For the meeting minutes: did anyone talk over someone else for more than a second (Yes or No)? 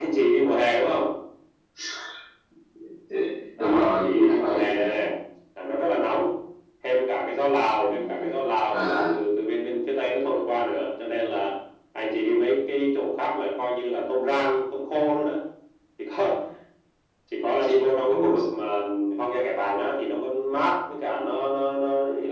Yes